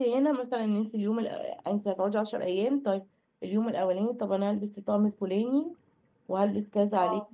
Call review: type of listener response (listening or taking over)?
listening